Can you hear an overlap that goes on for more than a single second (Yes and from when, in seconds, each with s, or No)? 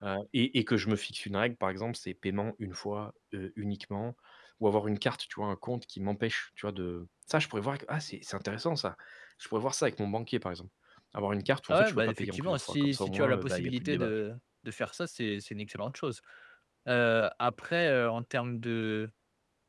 Yes, from 11.7 s